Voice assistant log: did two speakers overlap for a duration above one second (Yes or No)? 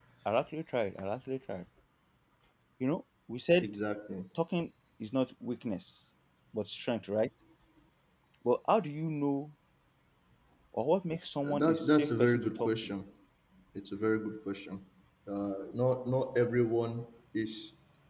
Yes